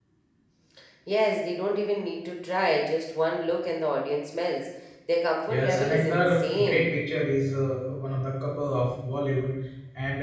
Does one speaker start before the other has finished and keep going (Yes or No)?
Yes